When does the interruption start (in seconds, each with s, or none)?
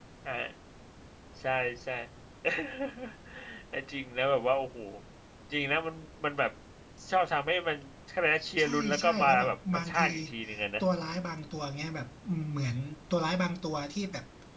8.6 s